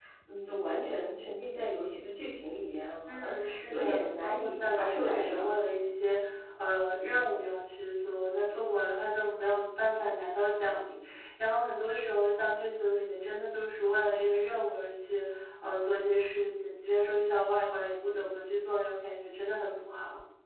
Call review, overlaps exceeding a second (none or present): present